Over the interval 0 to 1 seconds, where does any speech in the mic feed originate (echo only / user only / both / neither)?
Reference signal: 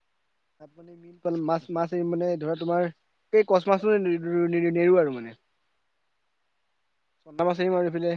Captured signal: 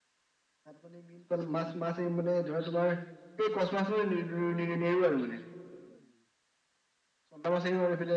neither